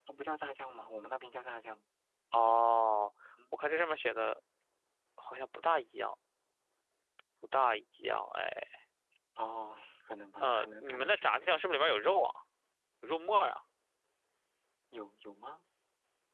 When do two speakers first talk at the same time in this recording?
10.4 s

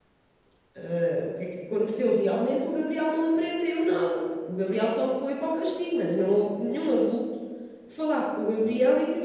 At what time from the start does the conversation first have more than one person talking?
none

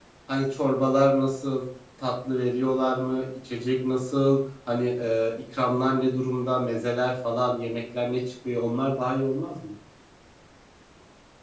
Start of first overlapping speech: none

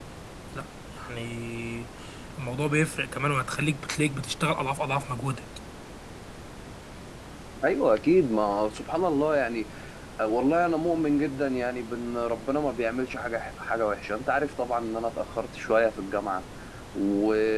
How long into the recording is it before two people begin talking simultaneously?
none

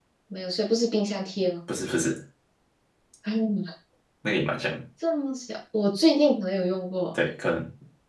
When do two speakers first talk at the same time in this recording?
none

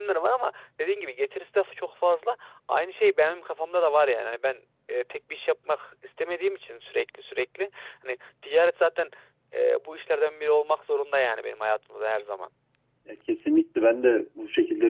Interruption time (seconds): none

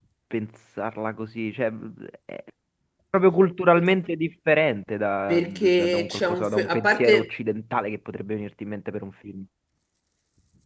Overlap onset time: 5.3 s

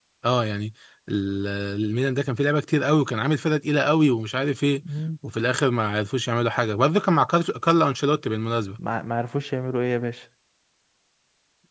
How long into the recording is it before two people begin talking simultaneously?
none

